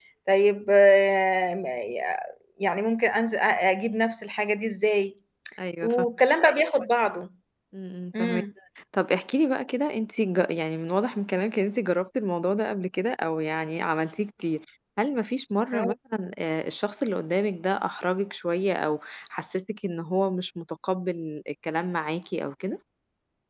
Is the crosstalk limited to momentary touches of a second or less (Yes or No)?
Yes